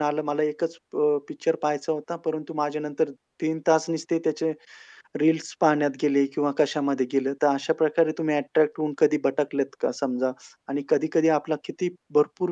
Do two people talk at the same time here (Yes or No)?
No